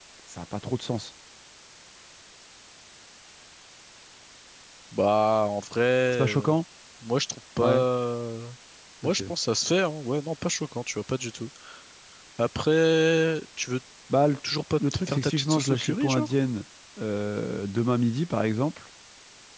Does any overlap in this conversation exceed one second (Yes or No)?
Yes